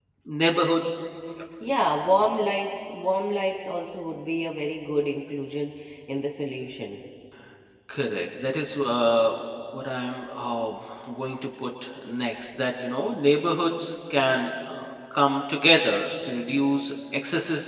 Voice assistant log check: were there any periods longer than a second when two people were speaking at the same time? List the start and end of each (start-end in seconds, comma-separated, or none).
none